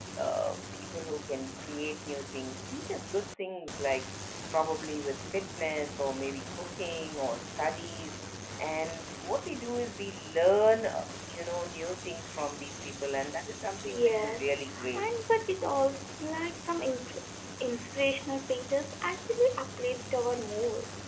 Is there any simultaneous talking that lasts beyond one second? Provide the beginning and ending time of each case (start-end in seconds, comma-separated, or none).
13.8-15.1